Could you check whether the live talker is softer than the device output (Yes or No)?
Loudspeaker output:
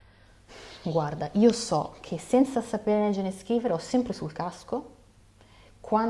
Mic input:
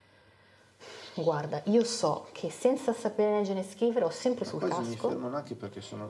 Yes